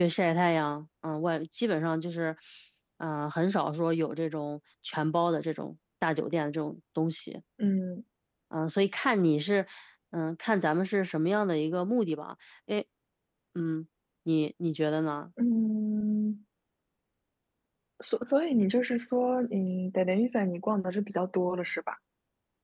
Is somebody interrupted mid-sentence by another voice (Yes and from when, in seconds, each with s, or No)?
No